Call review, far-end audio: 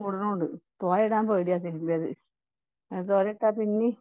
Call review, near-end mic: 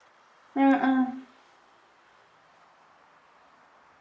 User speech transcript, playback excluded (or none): ആഹ് ആഹ്